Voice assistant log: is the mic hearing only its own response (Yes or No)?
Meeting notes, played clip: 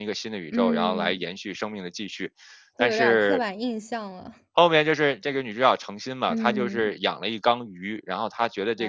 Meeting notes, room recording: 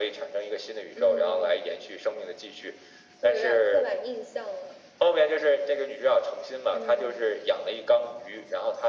Yes